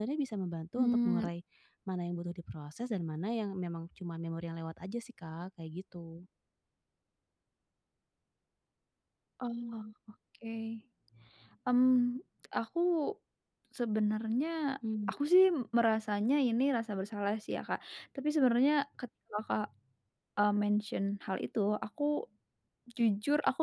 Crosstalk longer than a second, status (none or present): none